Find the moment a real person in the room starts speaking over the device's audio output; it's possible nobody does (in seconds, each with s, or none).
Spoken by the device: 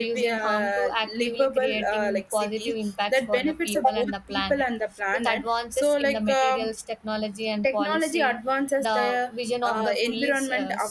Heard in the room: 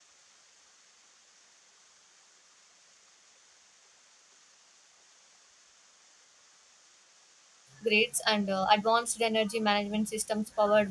7.8 s